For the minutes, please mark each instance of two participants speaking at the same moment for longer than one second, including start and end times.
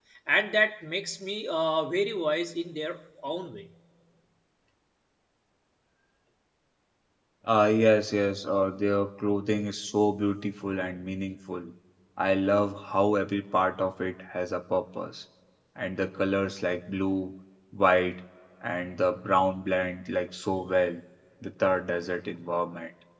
none

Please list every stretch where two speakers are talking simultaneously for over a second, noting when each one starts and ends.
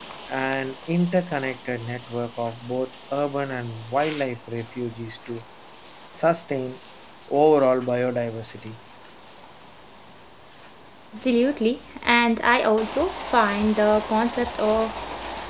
none

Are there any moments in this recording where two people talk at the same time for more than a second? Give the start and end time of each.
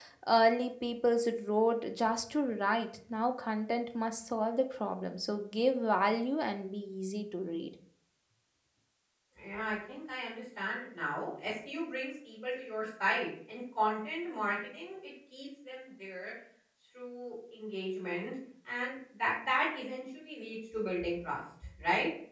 none

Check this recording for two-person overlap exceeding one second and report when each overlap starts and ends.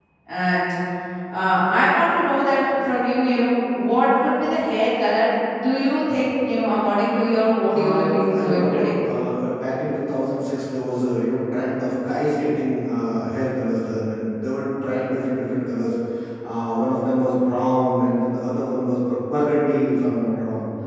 7.7-8.9

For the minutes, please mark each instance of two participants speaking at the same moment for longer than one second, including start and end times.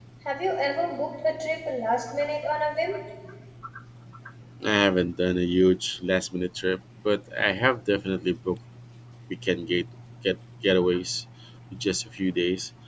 none

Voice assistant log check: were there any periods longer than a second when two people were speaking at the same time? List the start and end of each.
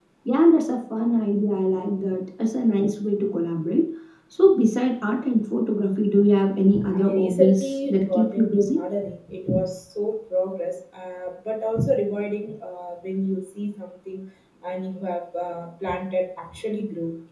6.9-8.8

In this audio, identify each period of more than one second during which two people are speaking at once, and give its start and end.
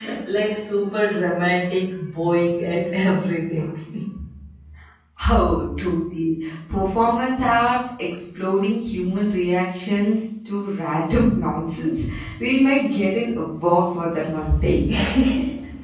none

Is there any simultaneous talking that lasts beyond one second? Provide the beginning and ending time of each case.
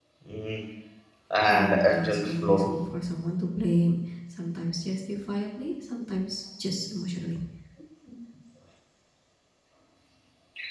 1.5-2.7

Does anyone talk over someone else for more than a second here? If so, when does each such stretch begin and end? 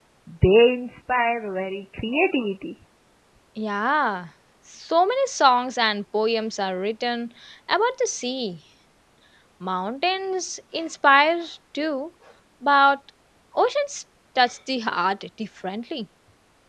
none

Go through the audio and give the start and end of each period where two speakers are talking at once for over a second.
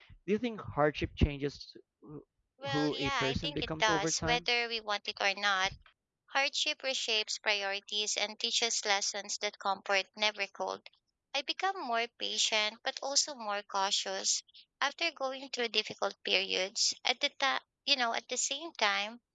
2.6-4.4

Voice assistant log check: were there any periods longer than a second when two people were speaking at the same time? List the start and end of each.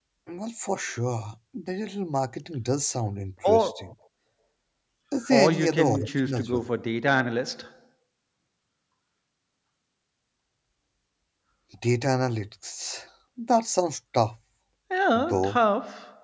5.3-6.7

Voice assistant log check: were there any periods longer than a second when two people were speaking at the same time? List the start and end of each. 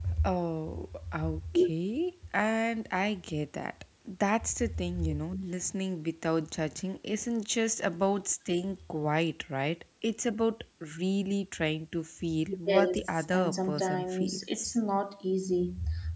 12.7-14.8

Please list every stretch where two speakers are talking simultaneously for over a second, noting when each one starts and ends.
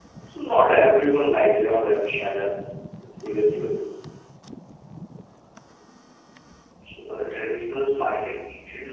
1.0-2.2

